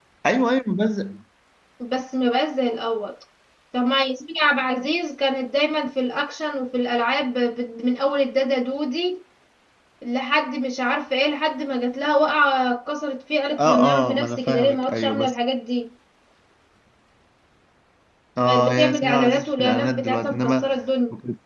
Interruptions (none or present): present